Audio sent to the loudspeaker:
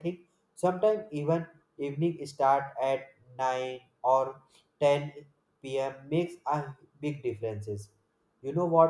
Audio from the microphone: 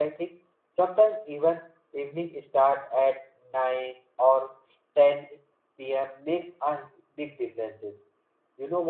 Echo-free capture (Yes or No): No